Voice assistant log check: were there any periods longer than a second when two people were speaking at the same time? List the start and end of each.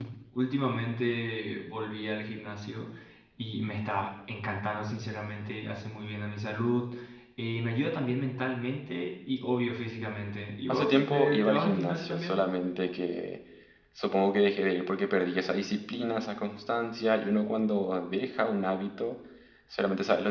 10.7-12.4

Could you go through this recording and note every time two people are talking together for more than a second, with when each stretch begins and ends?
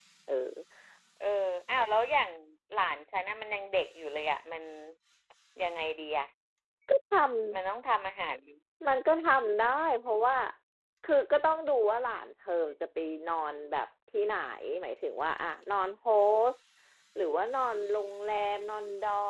none

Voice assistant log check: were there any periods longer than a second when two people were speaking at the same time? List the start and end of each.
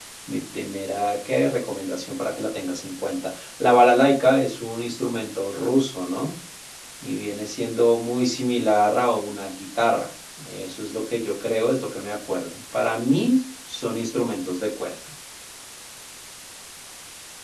none

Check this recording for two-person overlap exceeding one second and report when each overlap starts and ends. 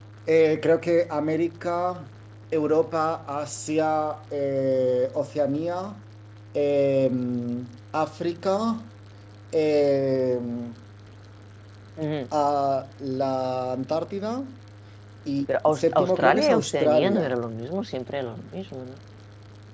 15.7-17.3

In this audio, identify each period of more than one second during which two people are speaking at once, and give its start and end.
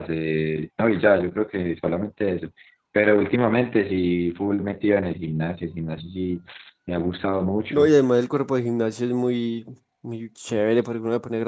none

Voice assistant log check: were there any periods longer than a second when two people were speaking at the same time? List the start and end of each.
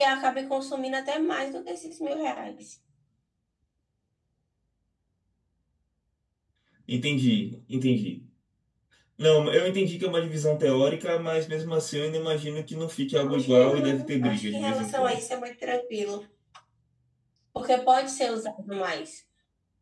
13.3-15.2

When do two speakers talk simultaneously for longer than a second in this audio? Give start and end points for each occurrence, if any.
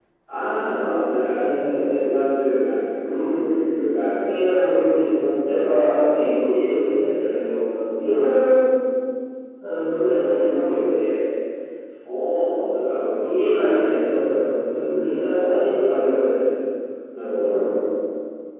12.9-14.1

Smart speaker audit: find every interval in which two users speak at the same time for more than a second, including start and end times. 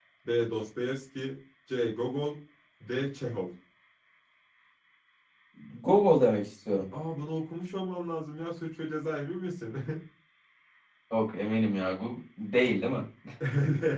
none

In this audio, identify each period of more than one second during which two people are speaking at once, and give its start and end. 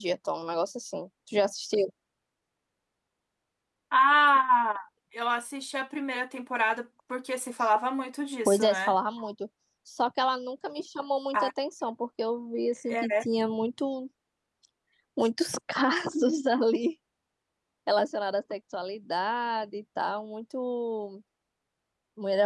none

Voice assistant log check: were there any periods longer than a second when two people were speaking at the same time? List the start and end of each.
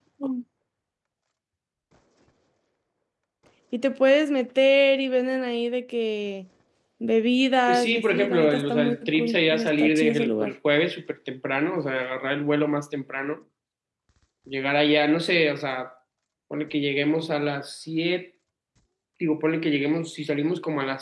7.7-10.5

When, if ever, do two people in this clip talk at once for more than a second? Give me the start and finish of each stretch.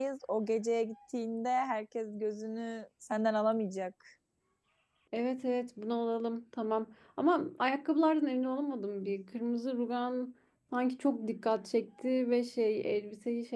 none

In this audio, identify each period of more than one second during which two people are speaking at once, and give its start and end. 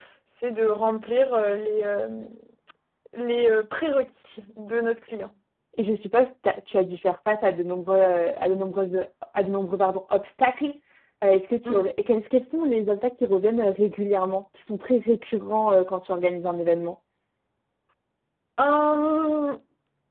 none

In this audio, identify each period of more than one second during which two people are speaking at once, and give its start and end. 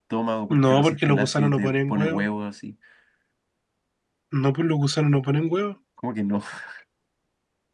0.5-2.3

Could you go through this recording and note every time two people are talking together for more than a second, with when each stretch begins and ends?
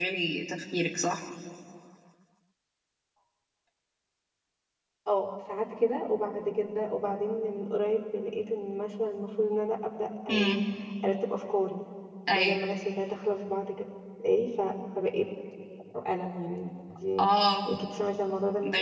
none

